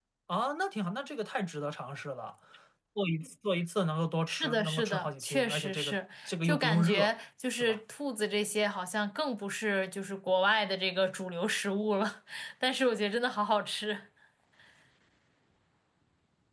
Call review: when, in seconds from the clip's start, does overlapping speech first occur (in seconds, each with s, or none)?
4.3 s